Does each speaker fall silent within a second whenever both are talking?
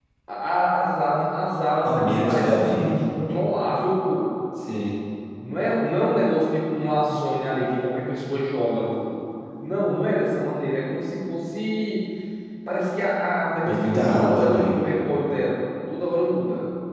No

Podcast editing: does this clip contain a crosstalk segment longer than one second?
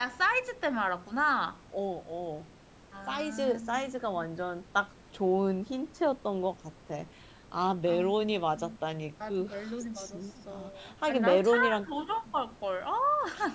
Yes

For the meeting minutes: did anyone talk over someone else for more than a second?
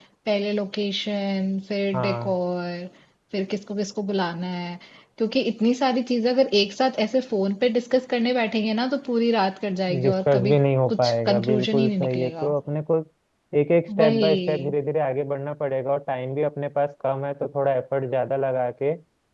Yes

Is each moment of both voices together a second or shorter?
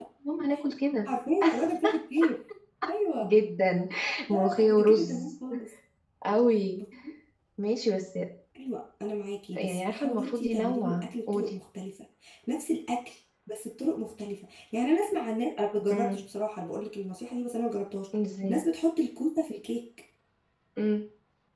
No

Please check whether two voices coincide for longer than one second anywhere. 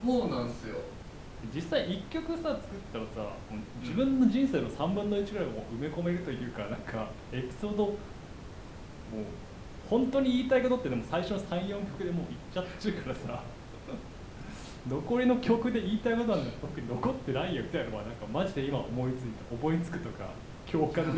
No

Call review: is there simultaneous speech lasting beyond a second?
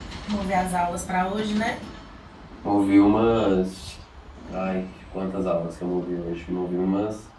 No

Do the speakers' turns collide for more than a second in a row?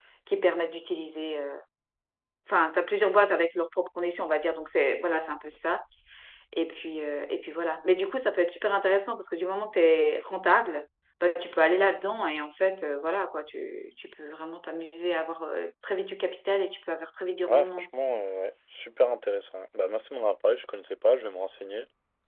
No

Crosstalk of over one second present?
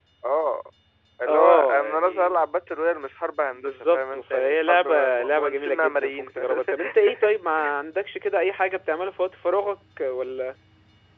Yes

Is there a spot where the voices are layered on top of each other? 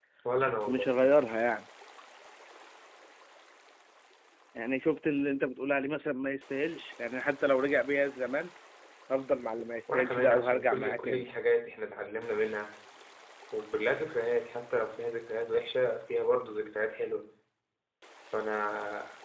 Yes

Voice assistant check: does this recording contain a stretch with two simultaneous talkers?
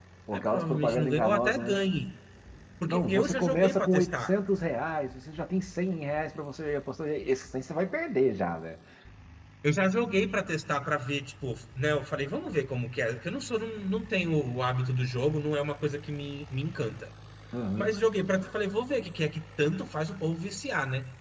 Yes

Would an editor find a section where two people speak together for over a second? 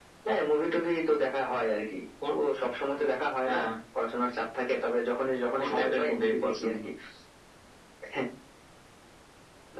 Yes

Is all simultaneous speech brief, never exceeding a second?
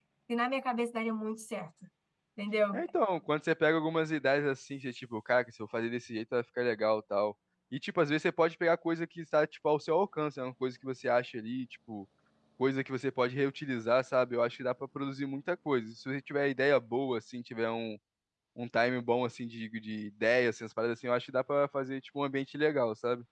Yes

